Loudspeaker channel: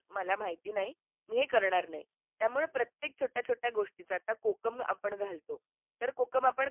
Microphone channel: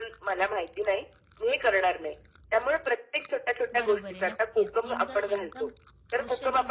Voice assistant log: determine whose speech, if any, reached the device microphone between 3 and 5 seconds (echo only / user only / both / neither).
both